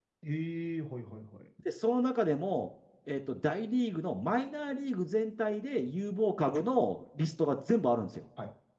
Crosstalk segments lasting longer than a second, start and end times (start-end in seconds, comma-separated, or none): none